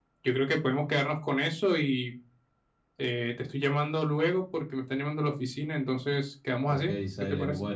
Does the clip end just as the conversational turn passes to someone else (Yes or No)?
Yes